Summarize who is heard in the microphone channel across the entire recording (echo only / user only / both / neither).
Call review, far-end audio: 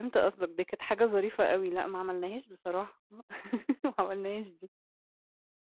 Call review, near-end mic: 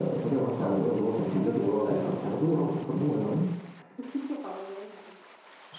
both